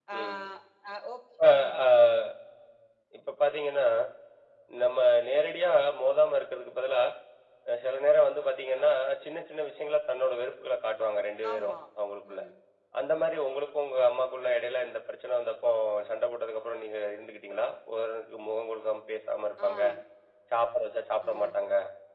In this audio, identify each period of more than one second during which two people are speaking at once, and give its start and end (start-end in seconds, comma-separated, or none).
none